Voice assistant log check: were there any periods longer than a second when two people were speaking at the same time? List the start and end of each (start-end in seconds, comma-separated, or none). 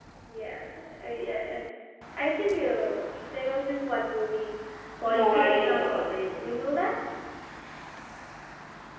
5.1-6.6